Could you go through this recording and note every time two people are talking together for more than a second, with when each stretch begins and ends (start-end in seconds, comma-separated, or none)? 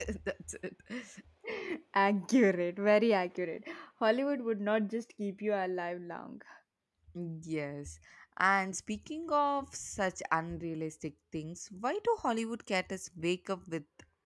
none